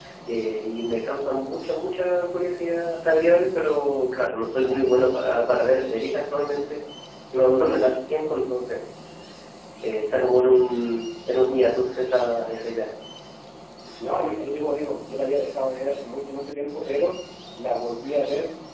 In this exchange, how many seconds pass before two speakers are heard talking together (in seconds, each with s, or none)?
none